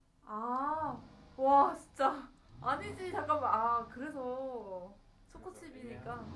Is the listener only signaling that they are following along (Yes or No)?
Yes